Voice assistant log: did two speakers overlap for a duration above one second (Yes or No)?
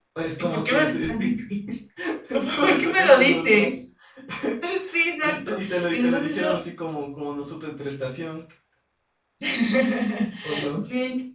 Yes